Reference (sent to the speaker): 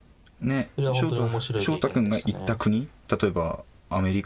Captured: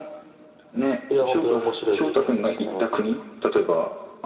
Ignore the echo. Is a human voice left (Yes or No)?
No